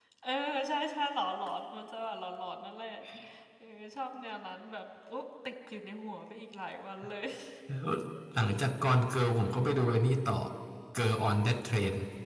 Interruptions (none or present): none